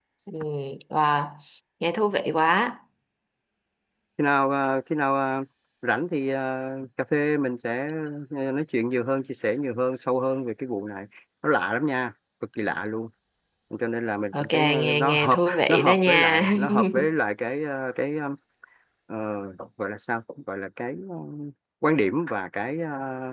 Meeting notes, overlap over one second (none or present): present